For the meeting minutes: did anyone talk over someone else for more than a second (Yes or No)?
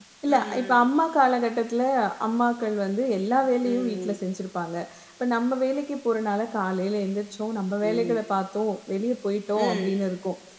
No